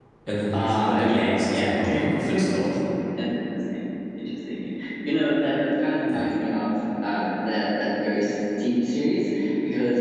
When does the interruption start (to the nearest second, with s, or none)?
1 s